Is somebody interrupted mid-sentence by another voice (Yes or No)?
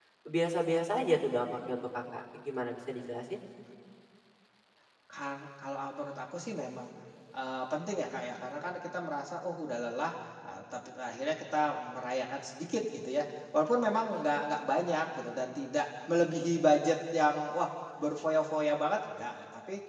No